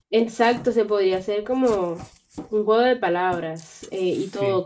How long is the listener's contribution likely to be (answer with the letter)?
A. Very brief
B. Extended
A